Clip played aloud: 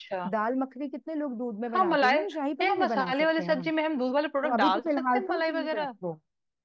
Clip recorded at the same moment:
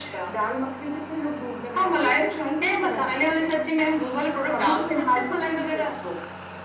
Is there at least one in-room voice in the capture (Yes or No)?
No